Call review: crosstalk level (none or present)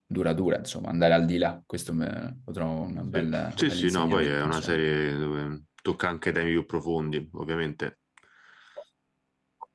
present